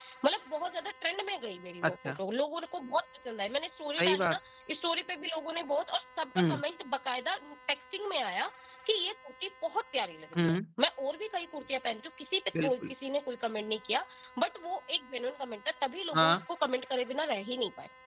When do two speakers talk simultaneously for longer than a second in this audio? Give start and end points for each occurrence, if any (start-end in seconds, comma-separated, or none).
none